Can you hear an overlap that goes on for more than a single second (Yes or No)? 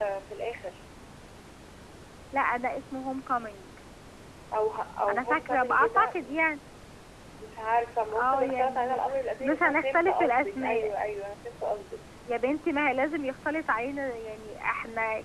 Yes